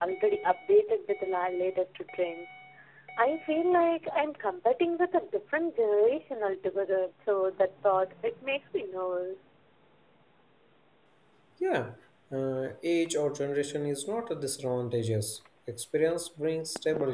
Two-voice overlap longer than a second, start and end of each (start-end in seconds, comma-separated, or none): none